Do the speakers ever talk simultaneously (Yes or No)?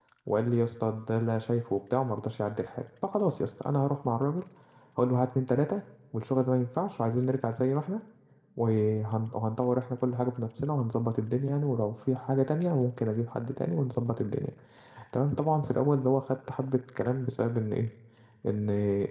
No